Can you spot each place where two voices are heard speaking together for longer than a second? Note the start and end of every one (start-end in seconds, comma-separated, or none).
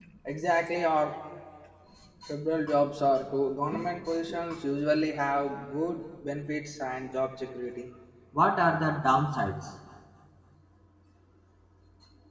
none